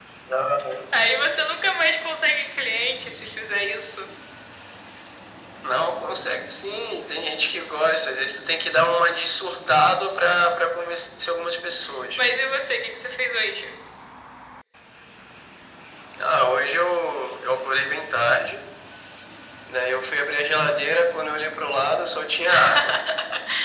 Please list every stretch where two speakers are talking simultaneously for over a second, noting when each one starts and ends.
none

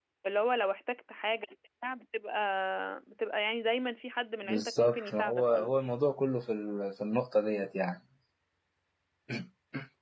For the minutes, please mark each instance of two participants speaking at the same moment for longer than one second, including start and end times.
4.5-5.7

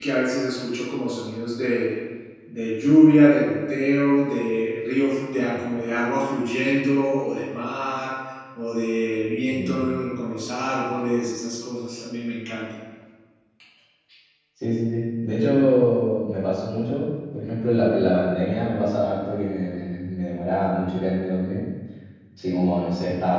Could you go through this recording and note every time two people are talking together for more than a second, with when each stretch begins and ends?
none

